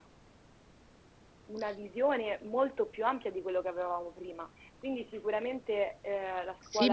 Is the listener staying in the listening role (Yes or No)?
No